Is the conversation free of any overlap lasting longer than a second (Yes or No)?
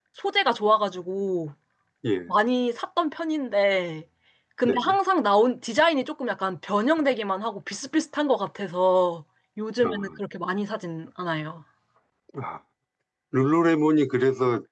Yes